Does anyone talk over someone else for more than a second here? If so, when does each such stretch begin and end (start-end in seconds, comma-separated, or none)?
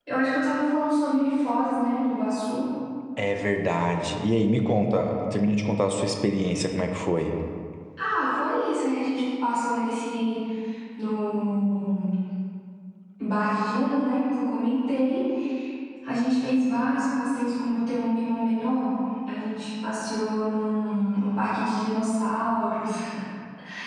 none